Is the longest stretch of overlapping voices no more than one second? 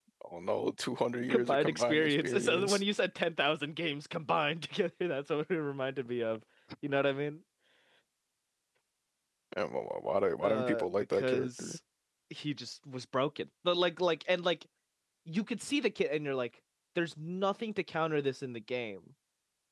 No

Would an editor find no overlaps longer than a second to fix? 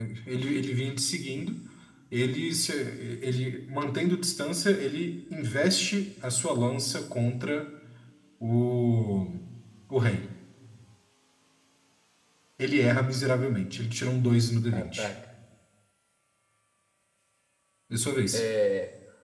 Yes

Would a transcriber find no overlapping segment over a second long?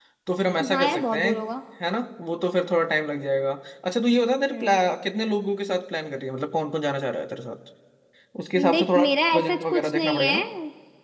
No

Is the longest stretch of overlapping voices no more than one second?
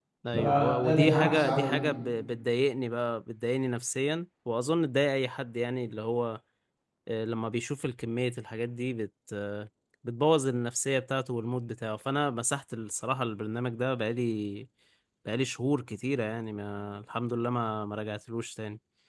No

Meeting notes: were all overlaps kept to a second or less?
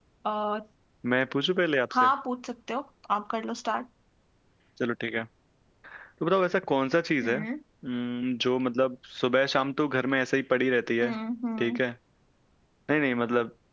Yes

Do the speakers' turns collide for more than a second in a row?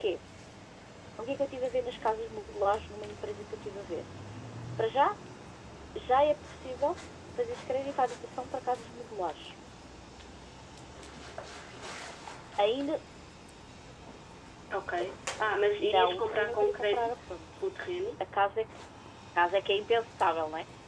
Yes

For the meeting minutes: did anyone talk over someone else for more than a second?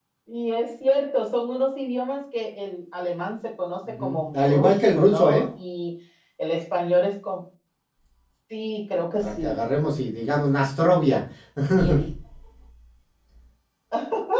Yes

